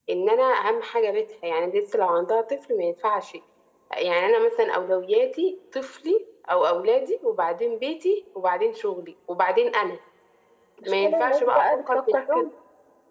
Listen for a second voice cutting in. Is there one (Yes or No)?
Yes